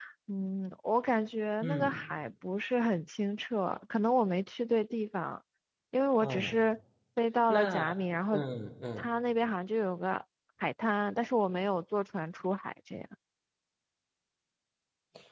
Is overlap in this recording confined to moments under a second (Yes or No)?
Yes